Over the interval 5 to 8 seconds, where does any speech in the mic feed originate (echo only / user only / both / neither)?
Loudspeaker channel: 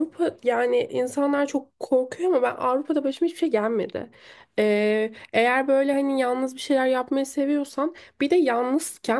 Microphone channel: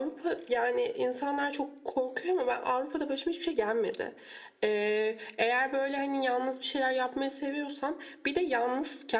echo only